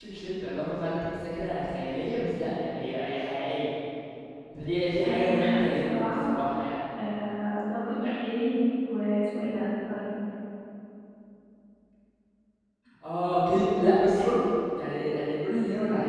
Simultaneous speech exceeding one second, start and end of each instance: 5.1-6.3

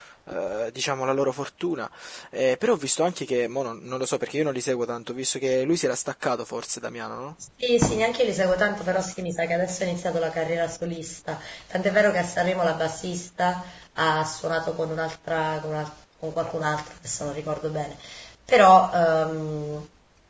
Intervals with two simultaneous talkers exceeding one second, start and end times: none

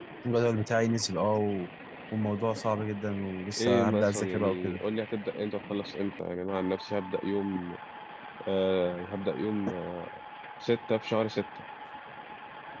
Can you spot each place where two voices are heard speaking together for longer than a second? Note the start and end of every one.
3.6-4.8

